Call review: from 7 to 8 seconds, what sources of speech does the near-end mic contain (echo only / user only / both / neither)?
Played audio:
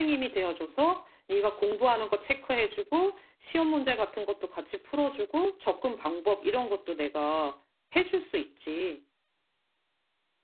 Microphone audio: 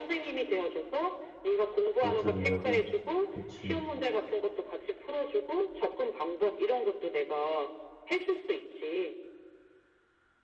echo only